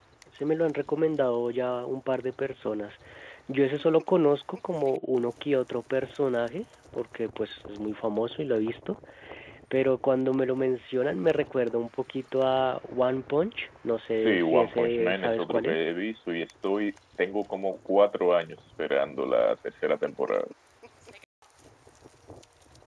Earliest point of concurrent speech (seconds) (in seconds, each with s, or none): 14.1 s